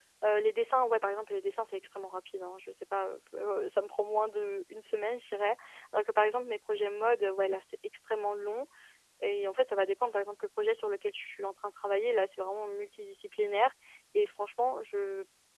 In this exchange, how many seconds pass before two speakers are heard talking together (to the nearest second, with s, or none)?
none